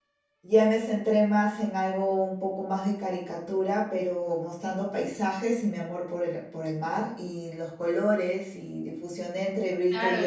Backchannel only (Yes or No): No